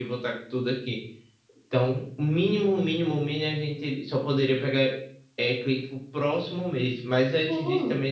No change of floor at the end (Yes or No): Yes